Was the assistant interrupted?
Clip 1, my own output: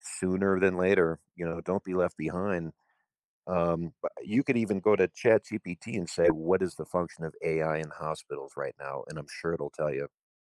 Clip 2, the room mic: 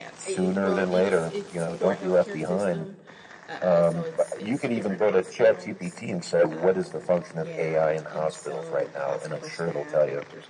Yes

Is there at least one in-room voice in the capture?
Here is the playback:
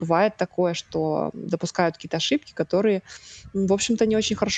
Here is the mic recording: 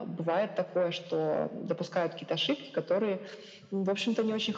No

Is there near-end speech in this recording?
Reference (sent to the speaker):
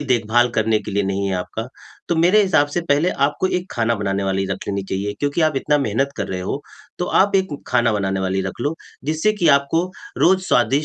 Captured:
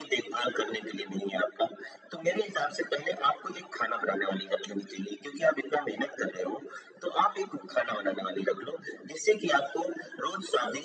No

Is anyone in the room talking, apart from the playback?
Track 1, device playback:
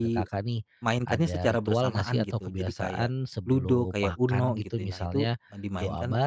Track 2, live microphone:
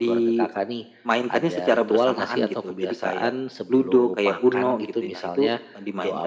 No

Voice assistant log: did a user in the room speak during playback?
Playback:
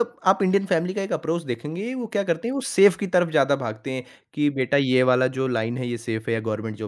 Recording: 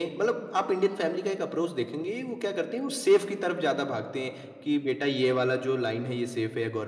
No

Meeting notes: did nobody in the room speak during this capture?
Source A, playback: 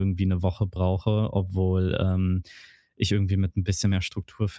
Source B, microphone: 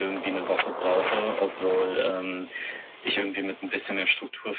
Yes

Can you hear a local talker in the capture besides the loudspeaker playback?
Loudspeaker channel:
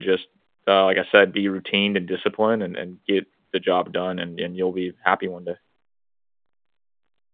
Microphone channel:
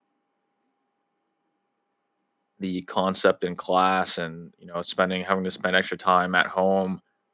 Yes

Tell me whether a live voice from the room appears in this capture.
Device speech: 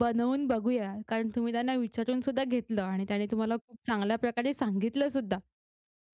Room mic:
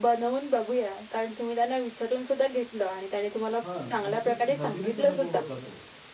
Yes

